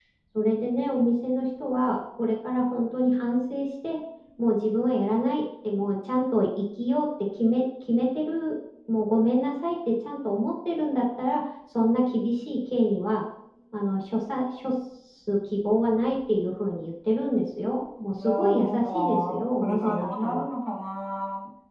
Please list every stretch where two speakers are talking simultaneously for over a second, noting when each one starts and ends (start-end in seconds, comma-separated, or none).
18.2-20.4